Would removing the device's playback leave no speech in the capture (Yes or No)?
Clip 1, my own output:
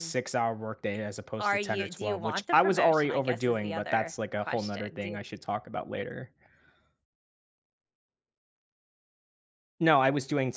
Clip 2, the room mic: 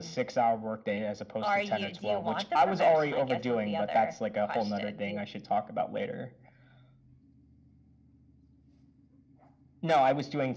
Yes